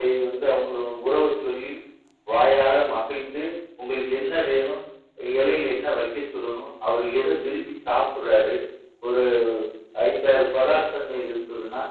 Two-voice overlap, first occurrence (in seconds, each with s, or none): none